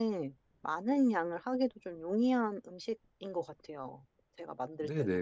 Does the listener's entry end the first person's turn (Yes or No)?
Yes